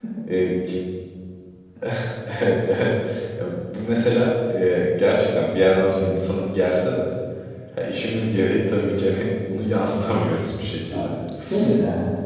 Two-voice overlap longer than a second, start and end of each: none

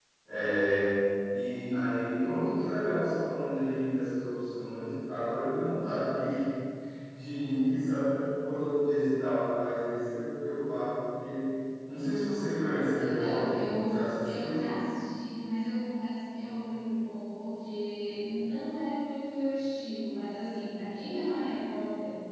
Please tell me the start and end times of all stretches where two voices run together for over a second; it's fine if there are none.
13.0-14.5

